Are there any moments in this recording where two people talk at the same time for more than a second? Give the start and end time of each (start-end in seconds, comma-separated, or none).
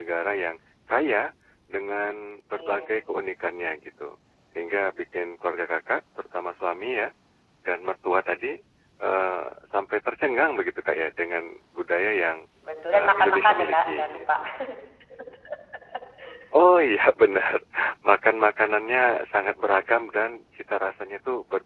12.9-14.2